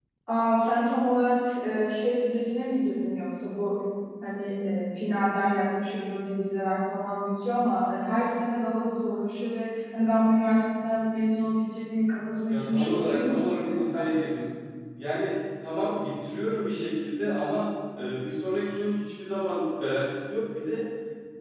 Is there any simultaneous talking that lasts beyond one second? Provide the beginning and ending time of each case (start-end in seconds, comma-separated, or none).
12.5-14.0